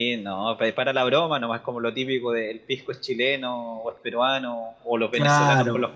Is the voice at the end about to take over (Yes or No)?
No